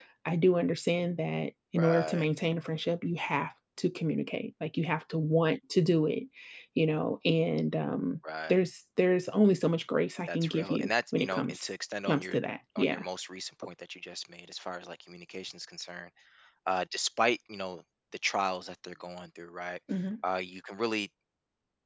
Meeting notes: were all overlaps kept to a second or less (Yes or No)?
No